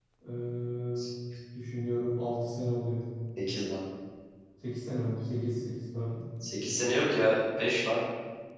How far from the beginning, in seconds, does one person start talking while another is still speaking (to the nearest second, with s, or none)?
none